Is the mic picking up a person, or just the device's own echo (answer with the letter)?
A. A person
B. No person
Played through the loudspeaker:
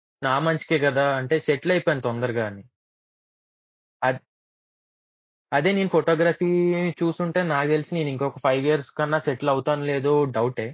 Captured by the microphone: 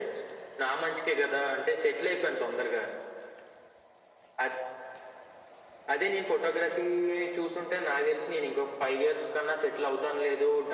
B